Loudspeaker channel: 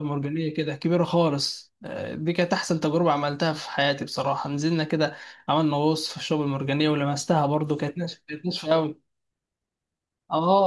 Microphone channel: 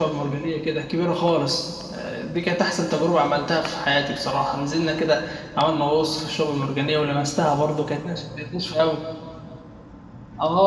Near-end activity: none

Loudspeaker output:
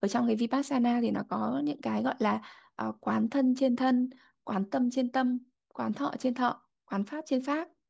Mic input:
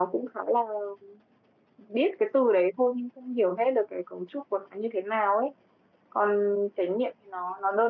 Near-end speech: present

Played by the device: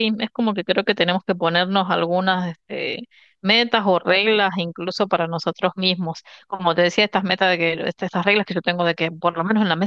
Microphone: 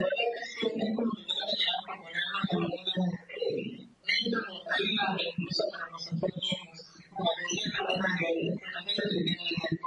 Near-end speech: none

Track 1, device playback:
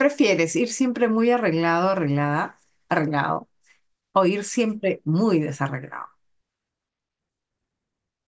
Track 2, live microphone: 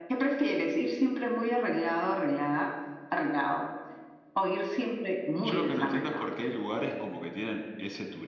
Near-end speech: present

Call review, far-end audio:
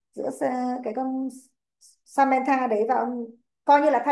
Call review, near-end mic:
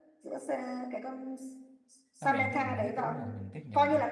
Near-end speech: present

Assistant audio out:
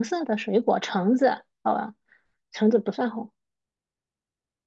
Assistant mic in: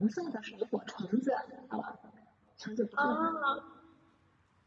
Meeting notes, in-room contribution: present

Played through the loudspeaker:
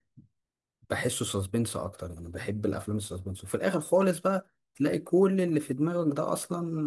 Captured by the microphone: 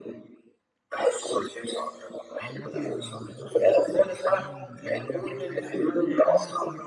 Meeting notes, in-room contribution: present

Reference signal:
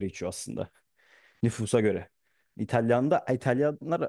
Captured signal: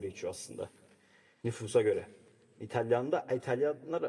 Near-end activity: none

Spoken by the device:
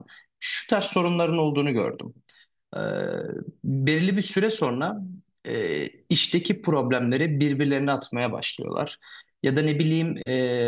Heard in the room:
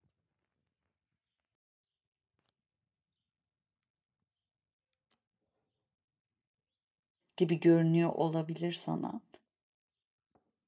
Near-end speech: present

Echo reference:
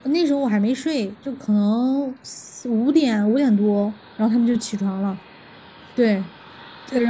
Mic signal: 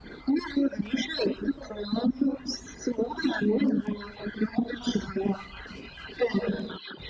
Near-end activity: none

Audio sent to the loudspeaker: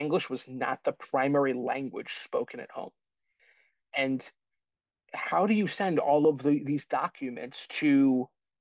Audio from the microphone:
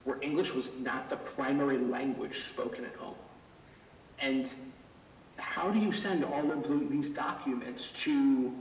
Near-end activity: none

